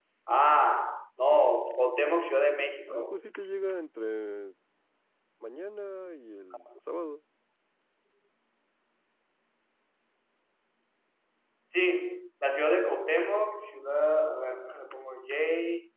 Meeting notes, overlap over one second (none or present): none